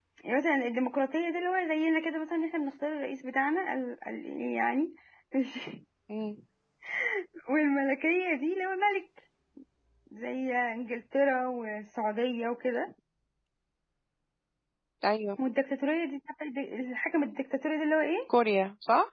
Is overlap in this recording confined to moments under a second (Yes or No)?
Yes